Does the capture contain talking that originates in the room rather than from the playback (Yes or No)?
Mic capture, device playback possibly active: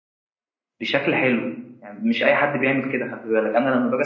Yes